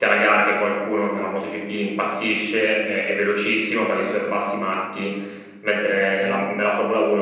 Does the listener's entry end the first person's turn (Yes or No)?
No